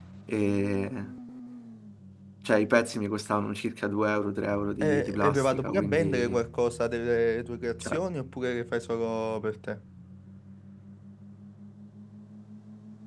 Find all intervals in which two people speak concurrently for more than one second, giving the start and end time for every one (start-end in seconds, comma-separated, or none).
4.8-6.4